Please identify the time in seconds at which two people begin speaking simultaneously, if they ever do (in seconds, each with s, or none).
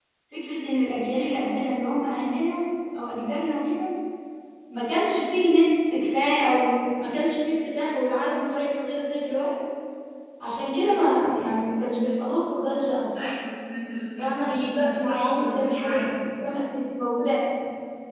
14.2 s